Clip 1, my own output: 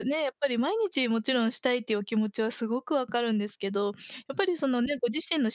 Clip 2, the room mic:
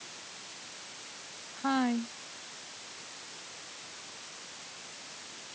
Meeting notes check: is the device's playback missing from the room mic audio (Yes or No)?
Yes